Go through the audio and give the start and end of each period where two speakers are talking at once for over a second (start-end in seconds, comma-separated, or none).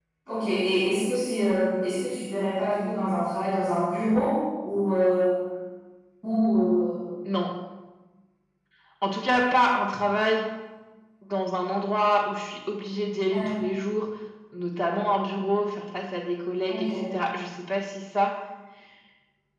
none